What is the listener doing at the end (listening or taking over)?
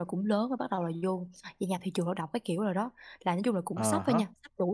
listening